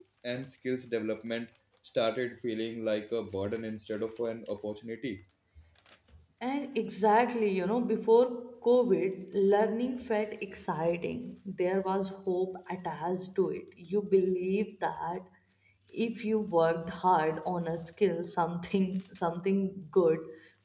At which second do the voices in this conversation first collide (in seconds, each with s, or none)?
none